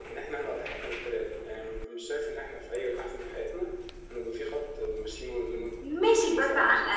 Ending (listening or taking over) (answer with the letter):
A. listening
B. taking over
B